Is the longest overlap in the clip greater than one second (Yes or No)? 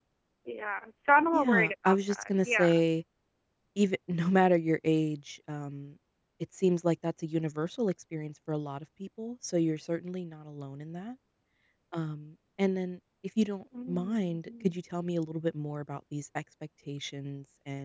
Yes